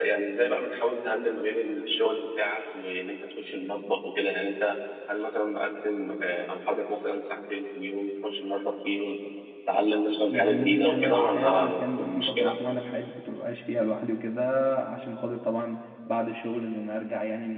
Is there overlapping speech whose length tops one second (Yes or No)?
Yes